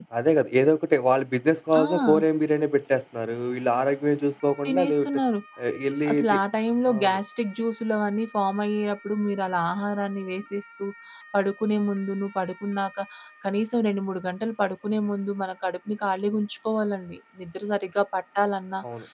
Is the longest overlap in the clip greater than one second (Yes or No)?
No